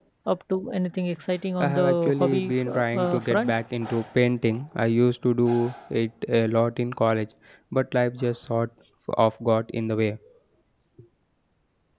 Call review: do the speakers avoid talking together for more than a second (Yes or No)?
No